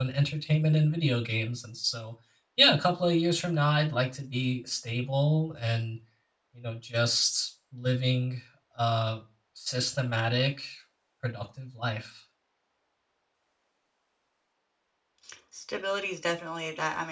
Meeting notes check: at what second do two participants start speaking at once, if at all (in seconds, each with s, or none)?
none